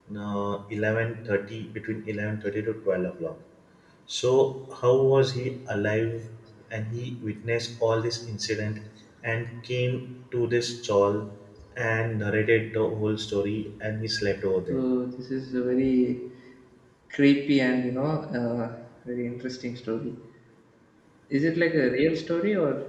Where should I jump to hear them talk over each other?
none

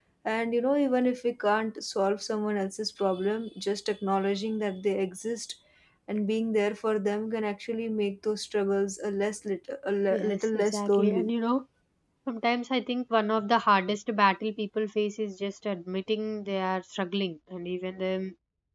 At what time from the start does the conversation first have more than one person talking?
10 s

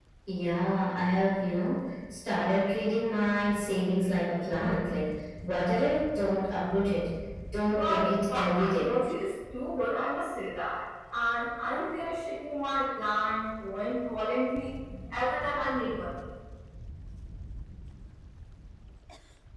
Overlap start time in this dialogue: 8 s

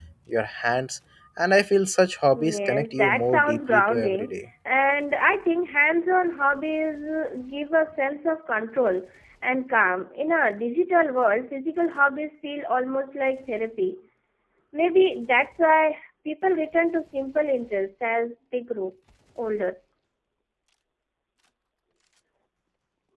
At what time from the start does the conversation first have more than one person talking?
2 s

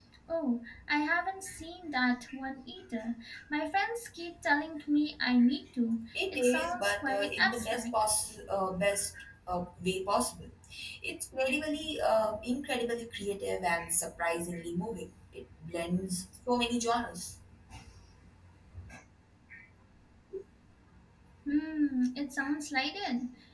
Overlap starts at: 6 s

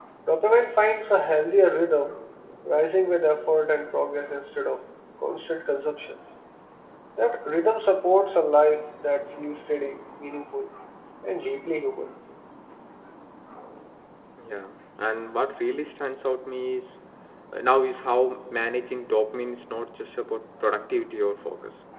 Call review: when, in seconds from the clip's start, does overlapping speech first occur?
none

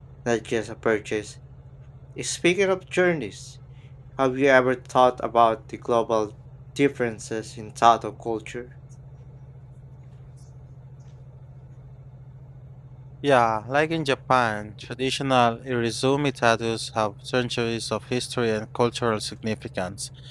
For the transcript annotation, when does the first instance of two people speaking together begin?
none

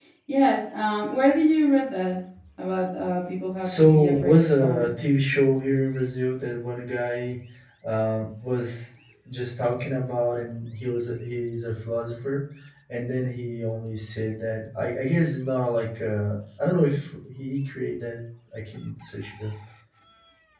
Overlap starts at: 4 s

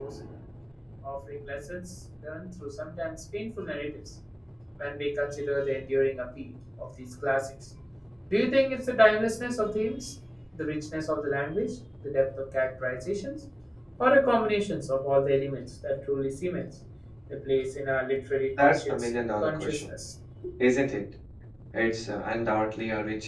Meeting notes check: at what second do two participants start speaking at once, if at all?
19 s

